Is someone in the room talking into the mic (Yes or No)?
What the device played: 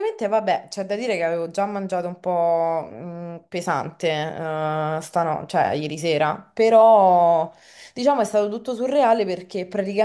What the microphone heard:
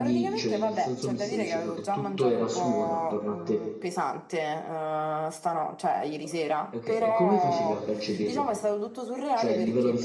Yes